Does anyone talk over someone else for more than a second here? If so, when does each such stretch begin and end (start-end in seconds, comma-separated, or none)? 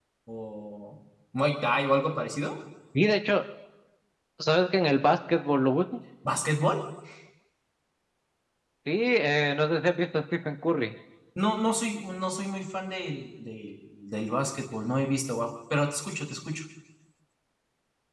none